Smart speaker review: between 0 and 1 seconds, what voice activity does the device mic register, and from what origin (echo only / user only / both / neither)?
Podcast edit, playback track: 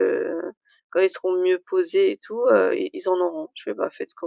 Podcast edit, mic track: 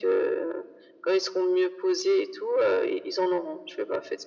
echo only